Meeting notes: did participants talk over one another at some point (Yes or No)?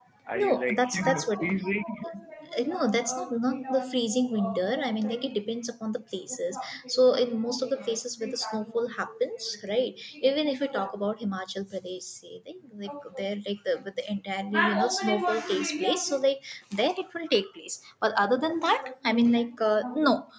Yes